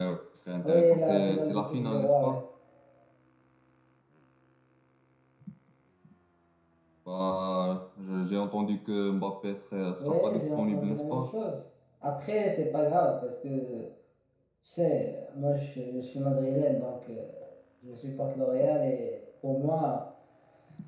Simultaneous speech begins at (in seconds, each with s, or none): 0.6 s